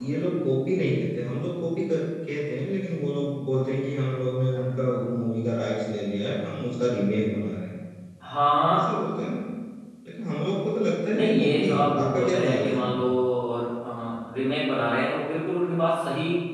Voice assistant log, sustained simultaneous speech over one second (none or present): present